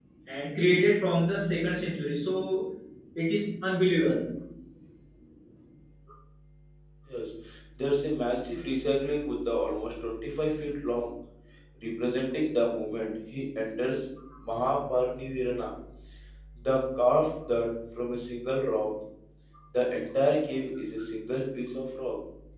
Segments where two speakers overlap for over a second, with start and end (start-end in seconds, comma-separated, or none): none